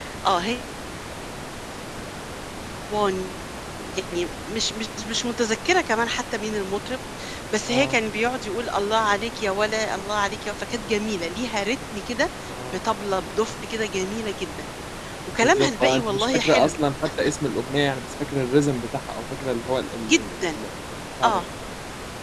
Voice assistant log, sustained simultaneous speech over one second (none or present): present